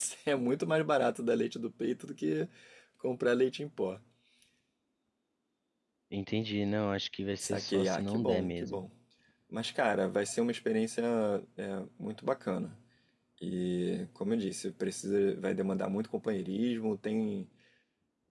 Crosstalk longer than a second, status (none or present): present